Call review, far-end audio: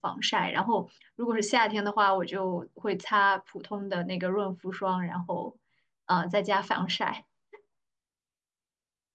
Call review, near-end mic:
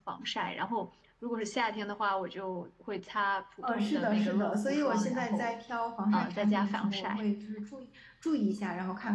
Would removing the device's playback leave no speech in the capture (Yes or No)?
No